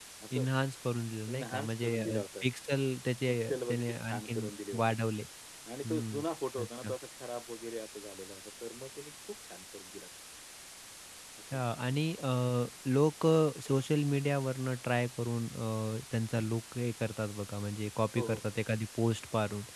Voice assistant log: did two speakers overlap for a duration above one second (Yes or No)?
Yes